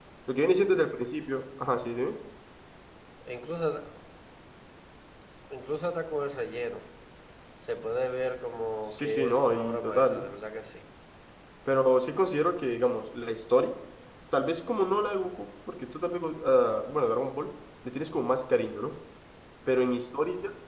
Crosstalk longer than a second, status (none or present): present